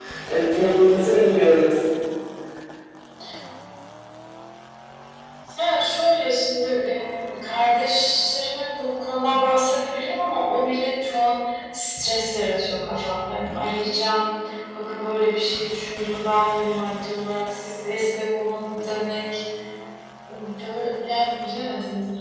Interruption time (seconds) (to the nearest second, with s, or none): none